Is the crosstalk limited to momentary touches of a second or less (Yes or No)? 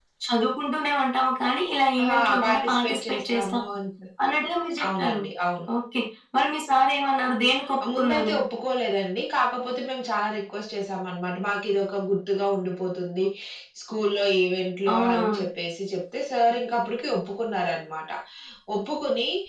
No